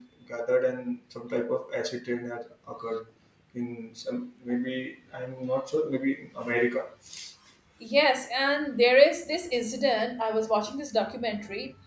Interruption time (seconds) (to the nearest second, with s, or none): none